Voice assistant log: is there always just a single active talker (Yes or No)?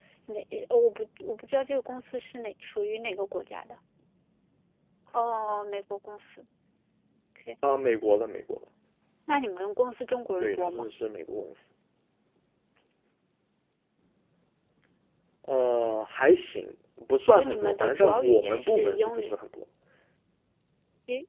No